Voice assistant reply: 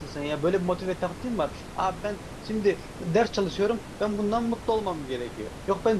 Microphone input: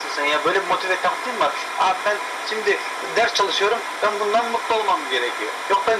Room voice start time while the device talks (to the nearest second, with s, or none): none